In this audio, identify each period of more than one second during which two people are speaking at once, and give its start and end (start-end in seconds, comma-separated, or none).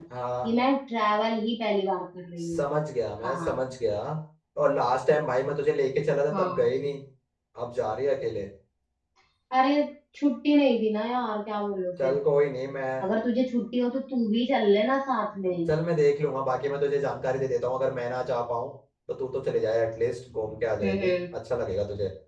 none